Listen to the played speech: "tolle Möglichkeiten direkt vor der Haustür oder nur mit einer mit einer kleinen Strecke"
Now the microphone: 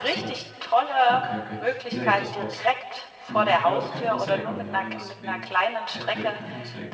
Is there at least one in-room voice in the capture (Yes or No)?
Yes